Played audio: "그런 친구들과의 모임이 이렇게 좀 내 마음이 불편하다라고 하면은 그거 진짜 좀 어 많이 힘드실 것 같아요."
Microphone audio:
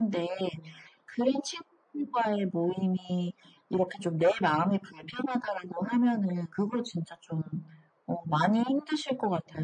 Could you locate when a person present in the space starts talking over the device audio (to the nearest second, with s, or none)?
none